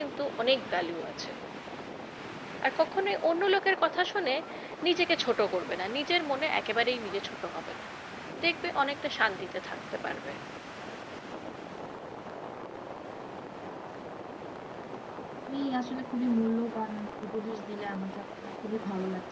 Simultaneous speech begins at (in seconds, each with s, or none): none